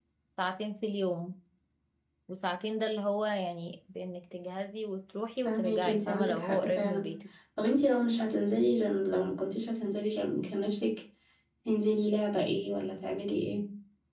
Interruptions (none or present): present